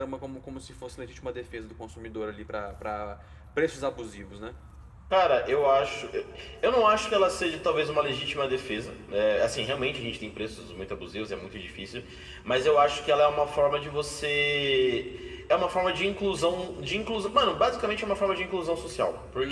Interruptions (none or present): none